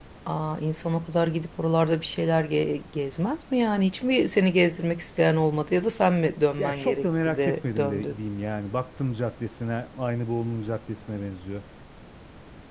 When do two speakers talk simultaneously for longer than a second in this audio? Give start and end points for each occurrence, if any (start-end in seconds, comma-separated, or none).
6.6-8.2